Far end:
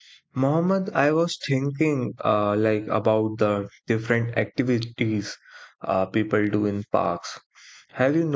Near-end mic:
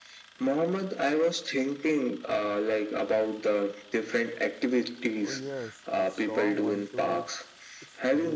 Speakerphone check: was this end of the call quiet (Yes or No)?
No